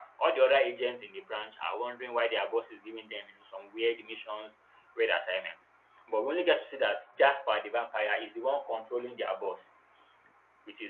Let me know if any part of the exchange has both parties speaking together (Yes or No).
No